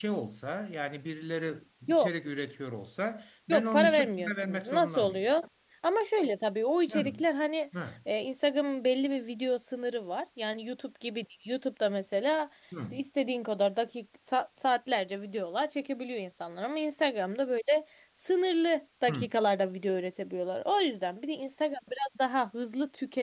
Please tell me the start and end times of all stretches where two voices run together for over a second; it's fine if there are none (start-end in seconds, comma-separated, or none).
3.5-5.2